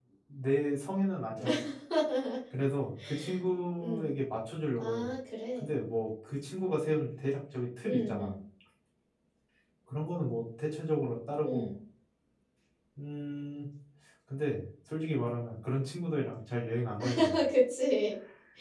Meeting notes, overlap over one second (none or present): none